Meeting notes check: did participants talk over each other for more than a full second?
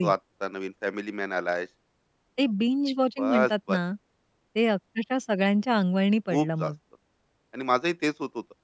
No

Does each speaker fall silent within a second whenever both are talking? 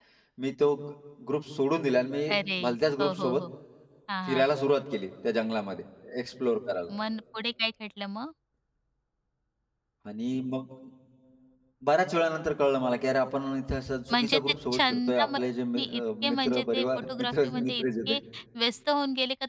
No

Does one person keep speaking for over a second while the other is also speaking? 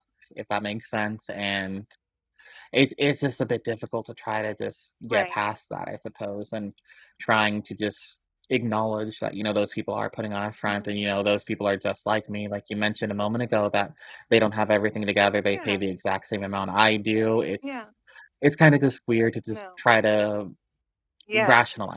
No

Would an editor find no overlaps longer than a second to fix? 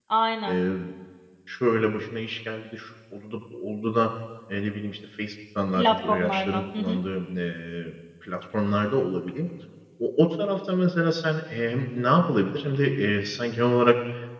No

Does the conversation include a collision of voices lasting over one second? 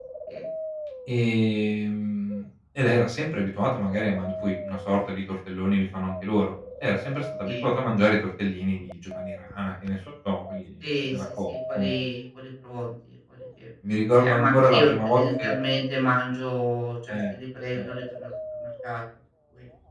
Yes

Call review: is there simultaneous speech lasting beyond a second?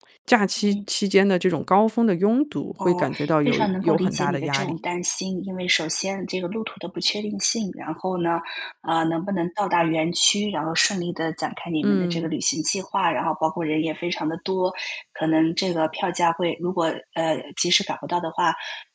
Yes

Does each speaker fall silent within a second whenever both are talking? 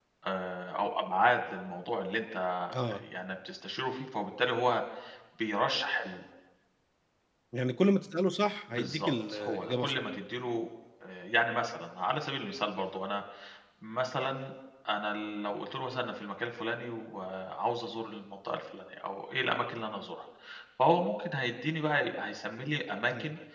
No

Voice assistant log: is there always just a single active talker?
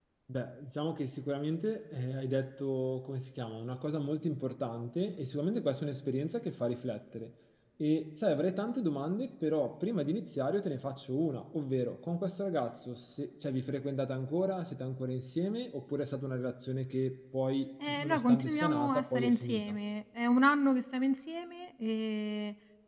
No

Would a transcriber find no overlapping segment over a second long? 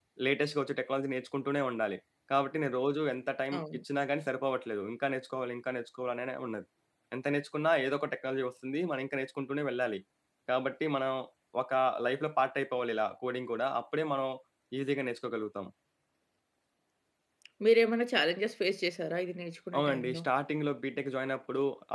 Yes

